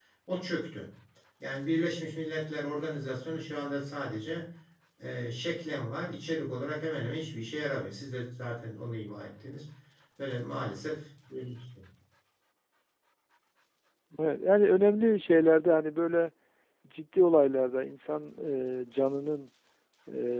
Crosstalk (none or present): none